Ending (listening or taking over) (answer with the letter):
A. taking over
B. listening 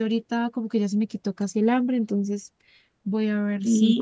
A